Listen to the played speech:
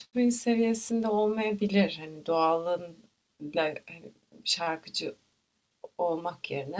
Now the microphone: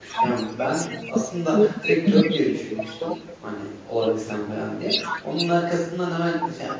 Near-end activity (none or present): present